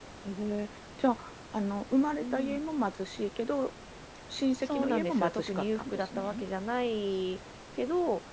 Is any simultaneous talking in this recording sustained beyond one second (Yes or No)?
Yes